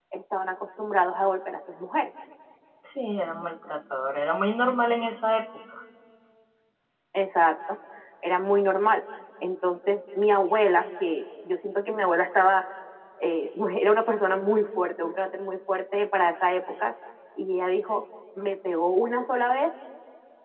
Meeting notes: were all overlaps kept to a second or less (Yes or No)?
Yes